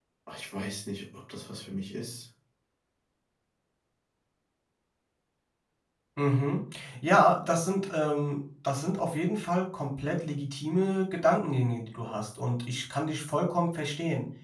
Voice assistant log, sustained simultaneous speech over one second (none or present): none